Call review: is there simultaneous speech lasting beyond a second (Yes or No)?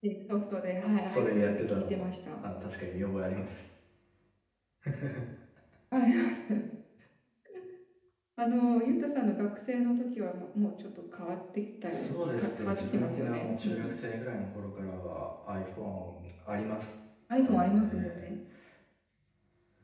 Yes